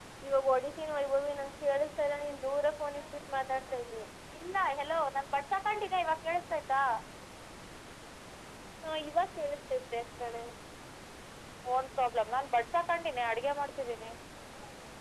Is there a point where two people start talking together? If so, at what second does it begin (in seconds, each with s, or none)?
none